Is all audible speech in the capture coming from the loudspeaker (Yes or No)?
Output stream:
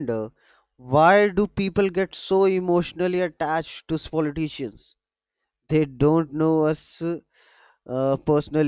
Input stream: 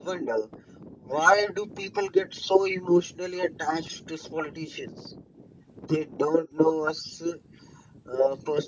Yes